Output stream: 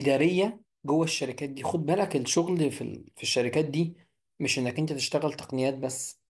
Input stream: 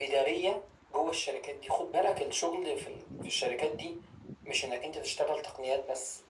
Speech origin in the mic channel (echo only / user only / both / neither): echo only